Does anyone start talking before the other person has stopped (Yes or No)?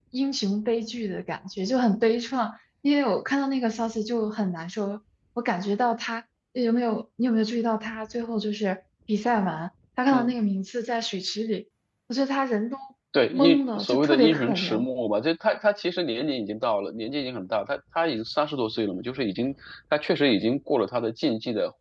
Yes